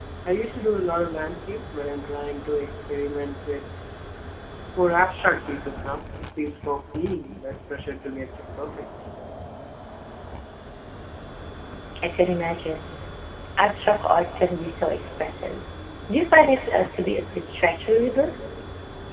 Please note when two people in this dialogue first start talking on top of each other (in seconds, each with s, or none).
none